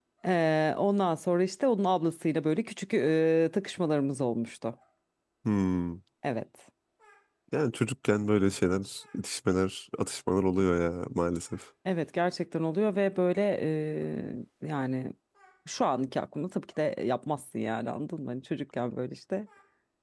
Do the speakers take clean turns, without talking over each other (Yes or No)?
Yes